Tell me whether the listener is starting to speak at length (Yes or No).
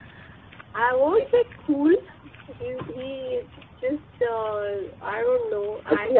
Yes